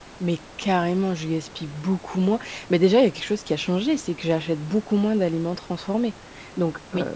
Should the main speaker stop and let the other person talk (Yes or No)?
No